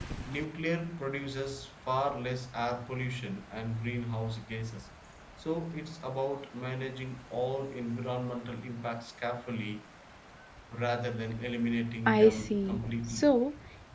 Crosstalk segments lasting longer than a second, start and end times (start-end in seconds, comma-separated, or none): 12.1-13.4